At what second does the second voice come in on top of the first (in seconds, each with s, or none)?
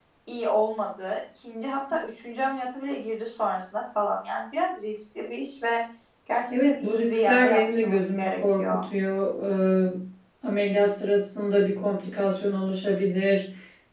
6.5 s